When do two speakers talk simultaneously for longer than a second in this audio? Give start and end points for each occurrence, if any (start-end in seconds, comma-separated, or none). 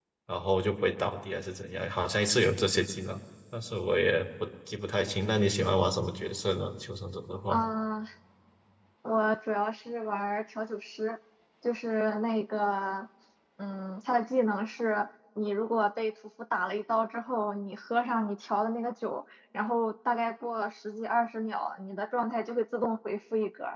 none